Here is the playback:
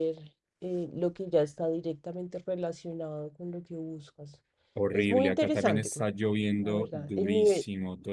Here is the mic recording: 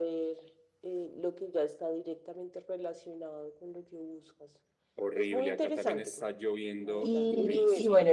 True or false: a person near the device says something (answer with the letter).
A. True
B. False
A